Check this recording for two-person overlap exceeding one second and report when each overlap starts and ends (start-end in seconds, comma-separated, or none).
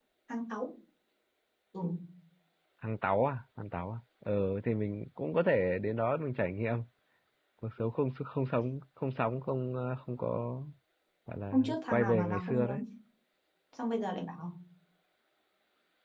11.5-12.8